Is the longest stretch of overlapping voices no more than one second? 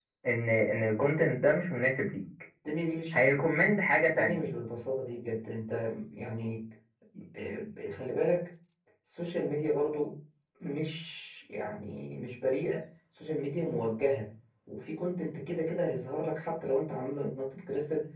Yes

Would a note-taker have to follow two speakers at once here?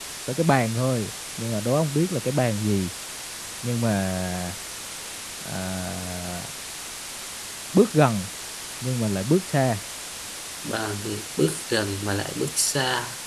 No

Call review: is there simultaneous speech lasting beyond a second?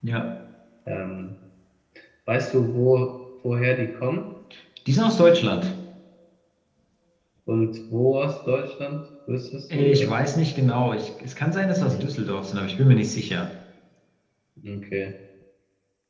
No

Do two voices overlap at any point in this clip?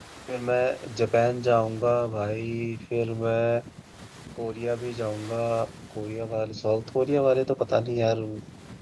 No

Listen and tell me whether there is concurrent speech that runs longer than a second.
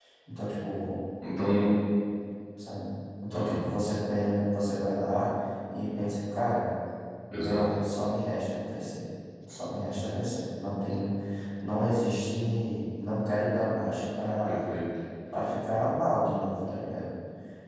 No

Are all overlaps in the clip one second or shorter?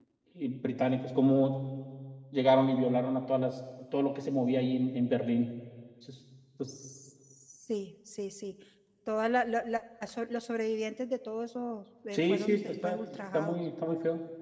No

